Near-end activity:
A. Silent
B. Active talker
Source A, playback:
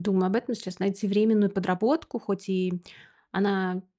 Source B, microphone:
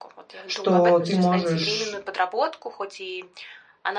B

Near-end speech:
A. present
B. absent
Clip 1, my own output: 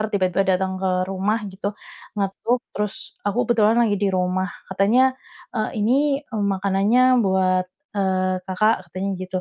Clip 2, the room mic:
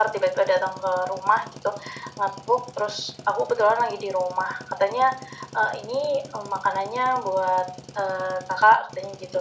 B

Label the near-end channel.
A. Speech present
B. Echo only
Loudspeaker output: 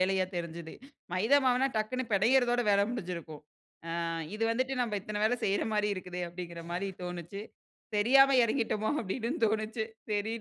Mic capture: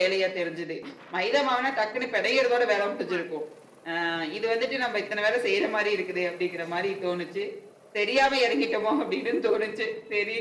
A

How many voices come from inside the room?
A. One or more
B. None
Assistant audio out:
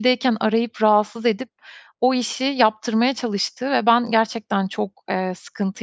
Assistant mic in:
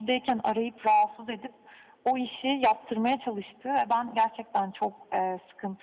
B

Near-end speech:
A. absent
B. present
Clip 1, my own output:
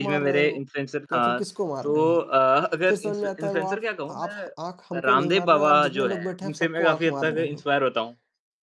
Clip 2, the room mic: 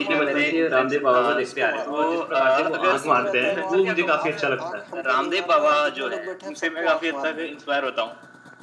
B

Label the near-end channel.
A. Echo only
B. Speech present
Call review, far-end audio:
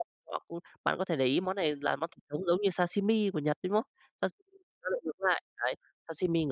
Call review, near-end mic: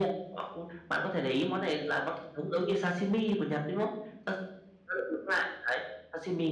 A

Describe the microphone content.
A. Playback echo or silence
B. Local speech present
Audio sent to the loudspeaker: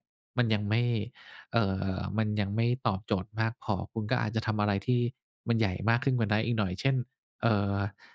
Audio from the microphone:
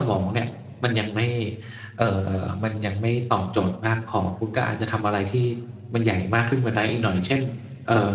A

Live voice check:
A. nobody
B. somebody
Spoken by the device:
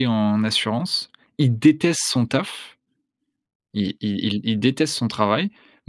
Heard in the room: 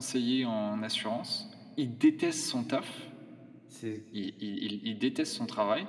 B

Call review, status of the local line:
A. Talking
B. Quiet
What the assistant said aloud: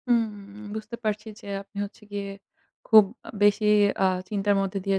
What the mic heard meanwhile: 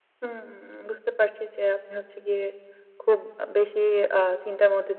B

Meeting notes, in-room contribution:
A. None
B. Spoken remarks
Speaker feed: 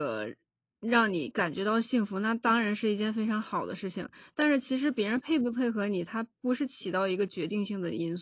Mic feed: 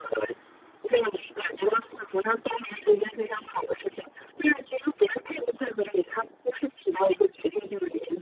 A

